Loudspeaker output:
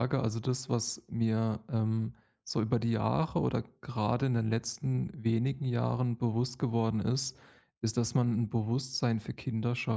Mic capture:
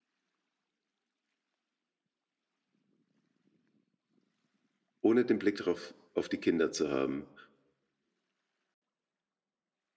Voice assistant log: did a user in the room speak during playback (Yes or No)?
Yes